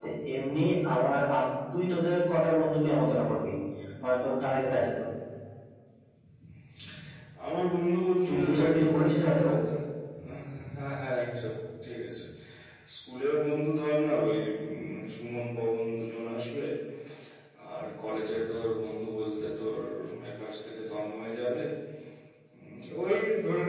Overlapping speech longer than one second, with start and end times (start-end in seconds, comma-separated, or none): 8.2-9.5